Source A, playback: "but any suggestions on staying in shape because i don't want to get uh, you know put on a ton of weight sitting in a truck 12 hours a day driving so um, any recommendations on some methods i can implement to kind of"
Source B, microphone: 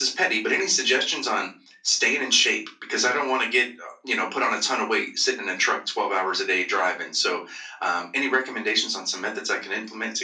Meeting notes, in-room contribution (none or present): none